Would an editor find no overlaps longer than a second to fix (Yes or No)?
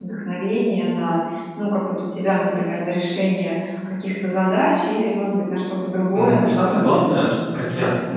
No